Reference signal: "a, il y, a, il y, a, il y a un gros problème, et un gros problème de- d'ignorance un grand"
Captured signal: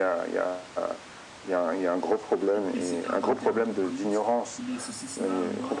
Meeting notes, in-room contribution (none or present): present